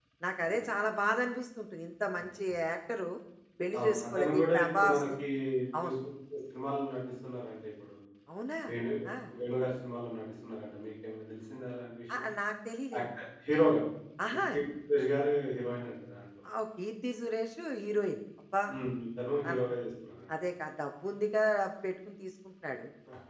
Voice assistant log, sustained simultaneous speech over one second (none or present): present